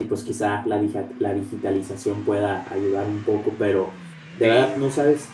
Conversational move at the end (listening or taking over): listening